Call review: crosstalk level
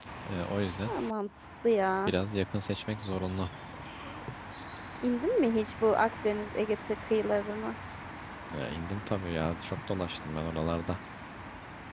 none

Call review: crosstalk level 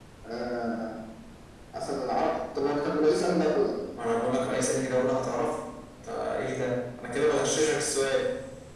none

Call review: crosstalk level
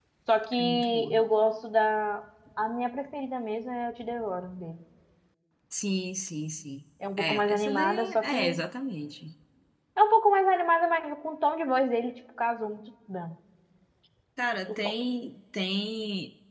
present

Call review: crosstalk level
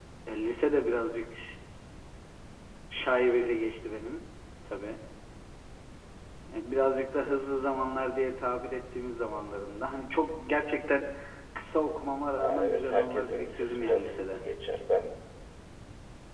present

